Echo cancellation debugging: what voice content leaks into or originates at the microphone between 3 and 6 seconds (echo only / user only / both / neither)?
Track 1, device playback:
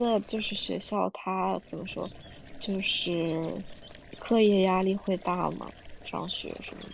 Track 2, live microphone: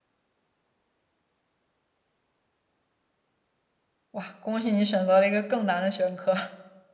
user only